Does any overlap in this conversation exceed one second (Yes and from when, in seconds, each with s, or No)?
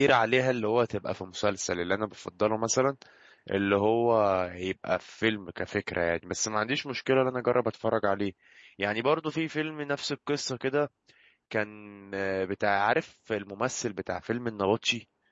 No